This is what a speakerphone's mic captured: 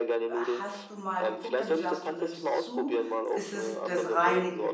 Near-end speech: present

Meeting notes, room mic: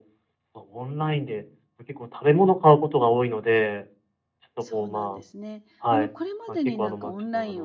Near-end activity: present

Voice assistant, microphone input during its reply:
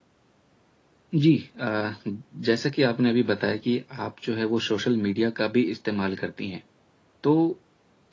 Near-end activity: present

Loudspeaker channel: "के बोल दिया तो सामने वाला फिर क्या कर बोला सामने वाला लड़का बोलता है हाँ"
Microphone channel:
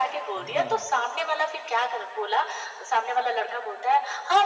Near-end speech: present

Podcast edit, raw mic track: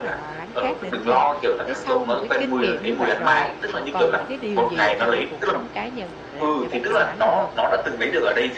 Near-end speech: present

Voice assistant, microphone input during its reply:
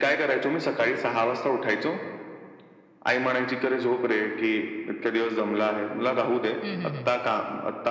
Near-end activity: present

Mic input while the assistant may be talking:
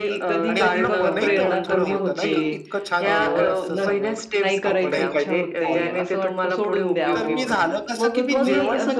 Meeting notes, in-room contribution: present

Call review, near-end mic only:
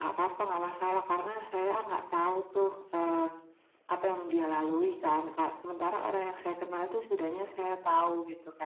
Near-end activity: present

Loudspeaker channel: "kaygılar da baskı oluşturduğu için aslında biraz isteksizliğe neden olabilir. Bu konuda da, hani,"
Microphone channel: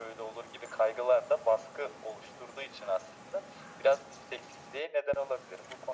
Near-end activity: none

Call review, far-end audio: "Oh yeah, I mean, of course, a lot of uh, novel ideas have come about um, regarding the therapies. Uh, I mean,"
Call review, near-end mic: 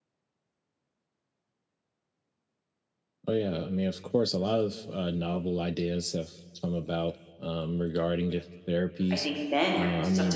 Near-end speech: present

